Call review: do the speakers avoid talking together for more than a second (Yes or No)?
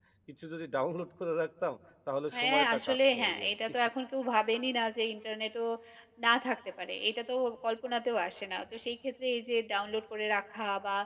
No